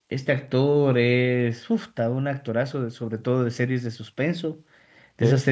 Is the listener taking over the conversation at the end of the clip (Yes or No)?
No